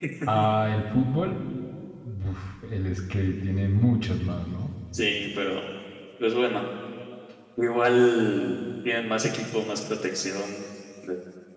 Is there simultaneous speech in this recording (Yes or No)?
No